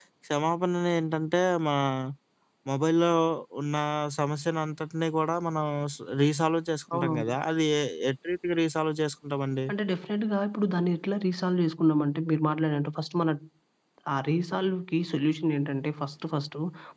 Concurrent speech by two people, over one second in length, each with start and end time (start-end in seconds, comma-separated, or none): none